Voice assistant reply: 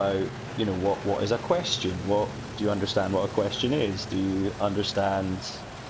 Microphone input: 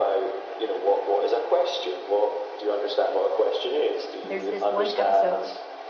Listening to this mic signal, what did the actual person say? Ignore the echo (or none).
there's this one episode